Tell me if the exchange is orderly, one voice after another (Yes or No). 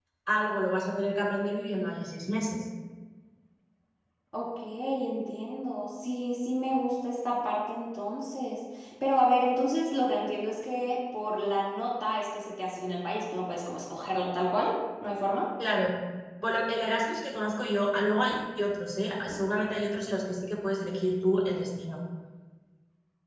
Yes